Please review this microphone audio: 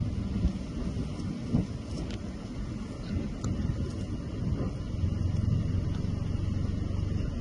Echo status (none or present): none